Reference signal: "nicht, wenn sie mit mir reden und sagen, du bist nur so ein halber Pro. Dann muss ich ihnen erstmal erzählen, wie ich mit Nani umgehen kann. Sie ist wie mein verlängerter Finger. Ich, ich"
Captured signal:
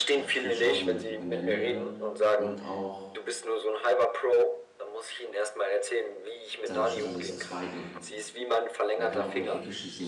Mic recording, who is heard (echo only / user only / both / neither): both